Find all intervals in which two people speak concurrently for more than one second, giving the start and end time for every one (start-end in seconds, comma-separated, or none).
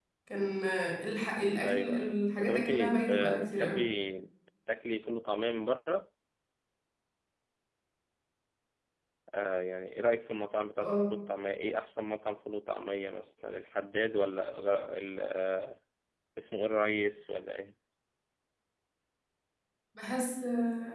1.6-3.8